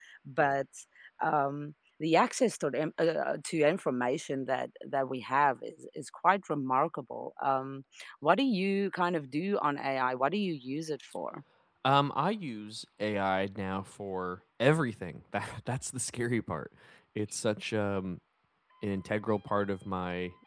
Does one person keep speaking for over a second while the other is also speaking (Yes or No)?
No